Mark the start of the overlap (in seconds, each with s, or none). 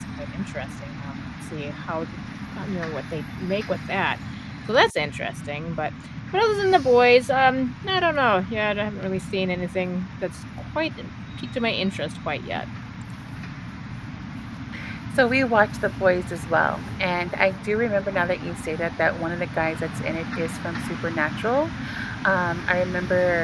none